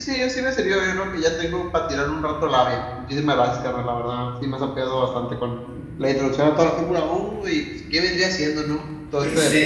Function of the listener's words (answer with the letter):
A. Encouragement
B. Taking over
B